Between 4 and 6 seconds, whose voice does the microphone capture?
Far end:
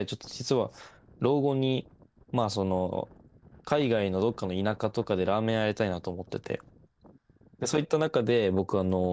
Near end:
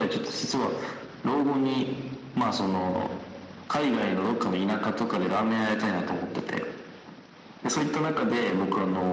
echo only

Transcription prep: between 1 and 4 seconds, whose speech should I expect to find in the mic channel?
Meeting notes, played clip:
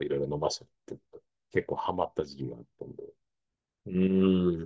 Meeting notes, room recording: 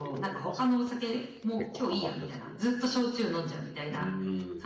both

